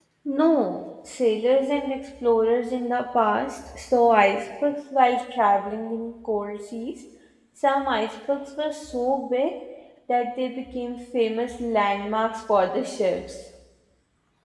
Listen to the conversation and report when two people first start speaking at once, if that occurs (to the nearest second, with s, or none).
none